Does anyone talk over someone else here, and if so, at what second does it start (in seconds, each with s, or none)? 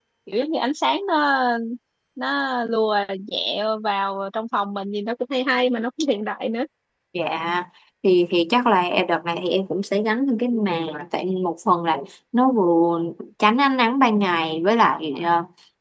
none